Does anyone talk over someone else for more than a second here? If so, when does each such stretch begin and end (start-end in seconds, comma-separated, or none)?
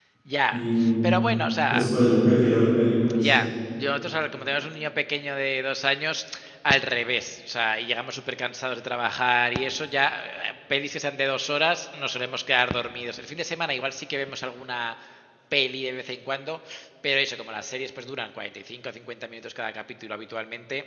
none